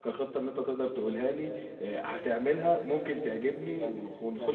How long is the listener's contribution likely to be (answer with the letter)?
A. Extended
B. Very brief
A